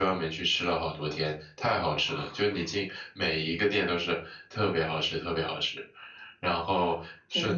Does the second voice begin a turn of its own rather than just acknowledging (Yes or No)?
No